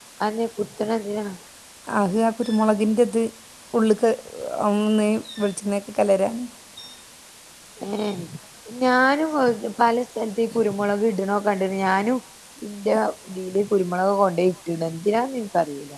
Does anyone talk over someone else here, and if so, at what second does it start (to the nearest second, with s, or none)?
none